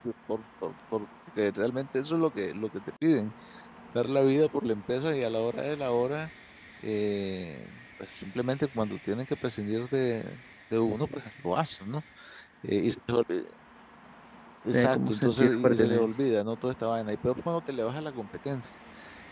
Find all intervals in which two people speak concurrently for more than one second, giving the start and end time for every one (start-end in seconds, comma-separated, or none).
14.7-16.1